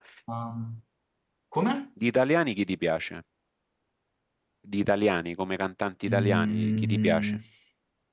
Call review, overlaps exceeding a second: present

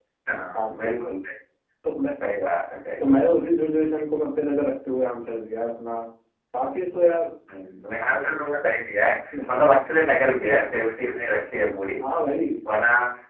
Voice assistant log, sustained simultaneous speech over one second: none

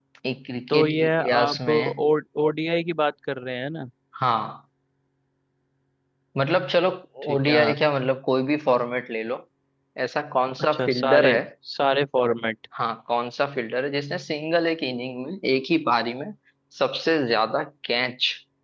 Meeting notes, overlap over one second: present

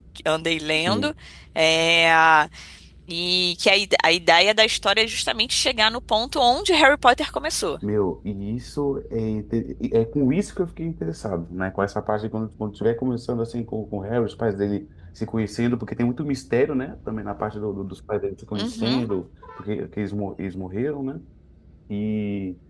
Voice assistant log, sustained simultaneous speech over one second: none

